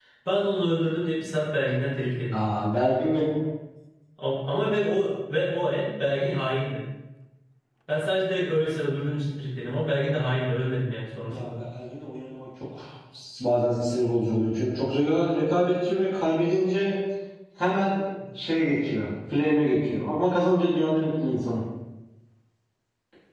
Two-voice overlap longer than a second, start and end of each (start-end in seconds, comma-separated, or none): none